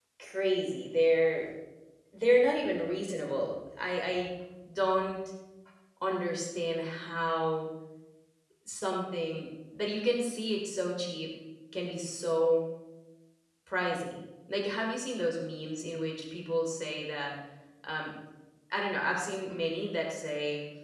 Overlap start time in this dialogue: none

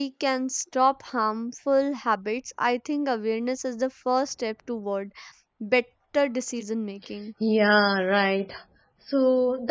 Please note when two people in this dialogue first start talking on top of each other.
none

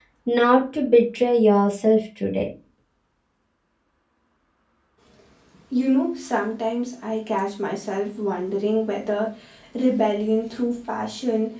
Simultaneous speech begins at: none

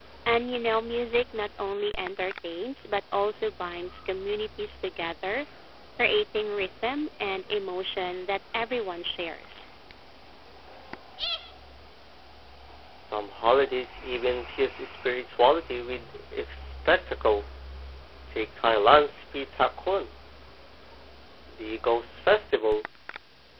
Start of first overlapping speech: none

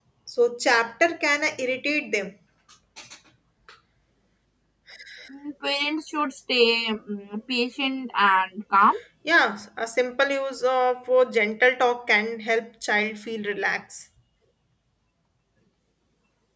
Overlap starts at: none

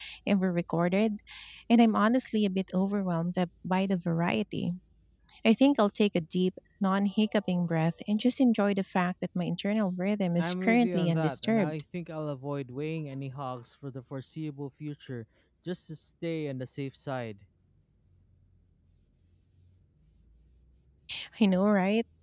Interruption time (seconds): 10.4 s

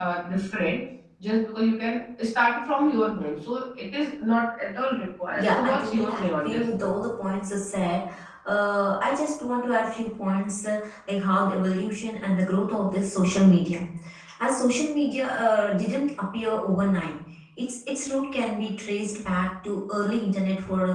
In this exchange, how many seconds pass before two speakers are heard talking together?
5.3 s

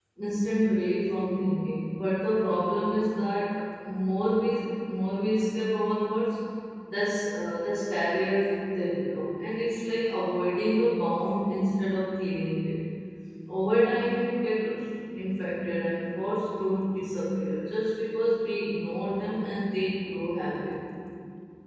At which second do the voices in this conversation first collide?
none

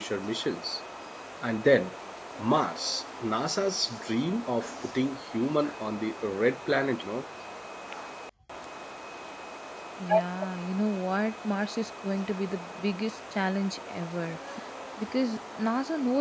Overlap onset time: none

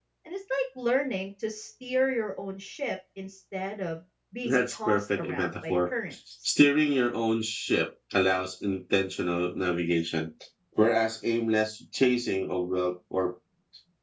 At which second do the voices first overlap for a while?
4.4 s

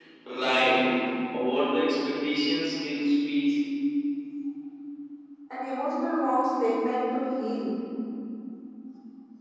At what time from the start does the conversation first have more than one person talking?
none

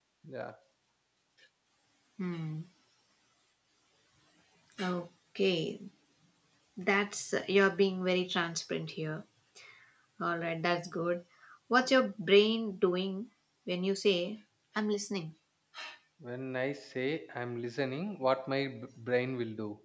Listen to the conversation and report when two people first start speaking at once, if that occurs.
none

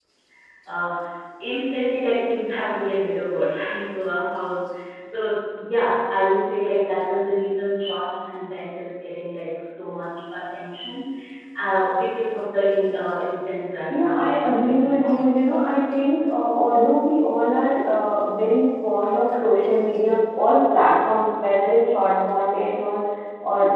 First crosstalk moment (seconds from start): 13.9 s

